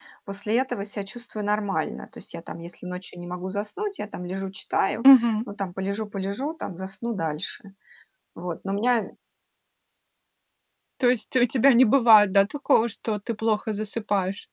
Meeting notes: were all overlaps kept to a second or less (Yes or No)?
Yes